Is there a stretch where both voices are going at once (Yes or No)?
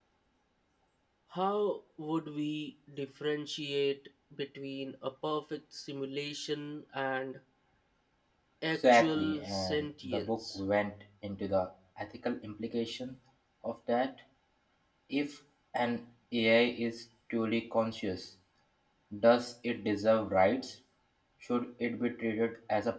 Yes